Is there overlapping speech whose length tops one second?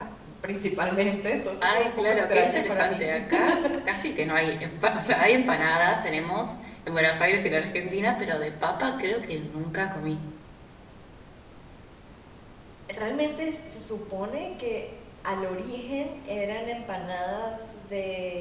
Yes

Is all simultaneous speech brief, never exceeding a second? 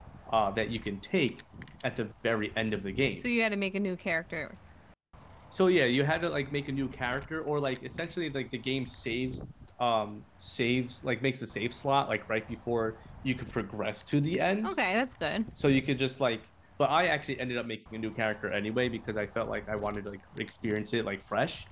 Yes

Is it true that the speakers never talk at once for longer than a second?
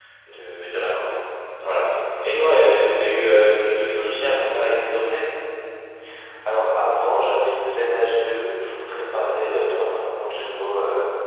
Yes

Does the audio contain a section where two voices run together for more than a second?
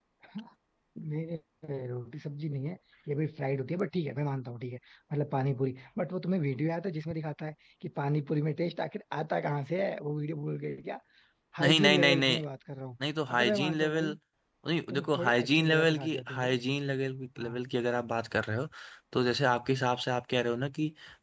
Yes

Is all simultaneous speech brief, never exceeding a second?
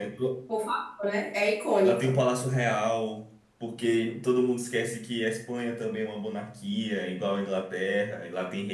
Yes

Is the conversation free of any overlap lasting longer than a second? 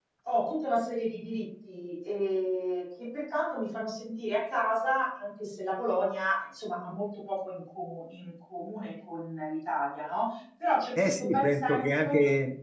No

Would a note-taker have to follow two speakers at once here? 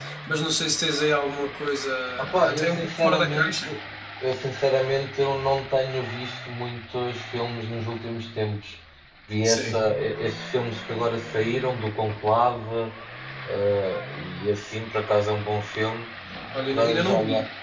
Yes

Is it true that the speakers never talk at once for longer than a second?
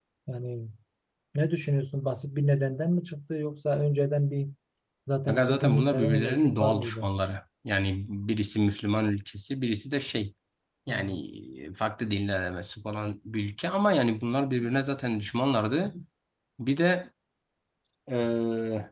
No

